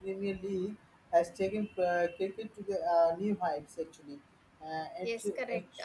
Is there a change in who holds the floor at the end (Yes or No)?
Yes